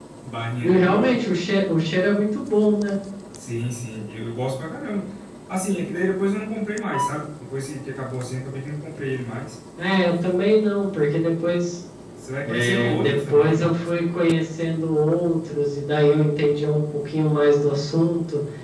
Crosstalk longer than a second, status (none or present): present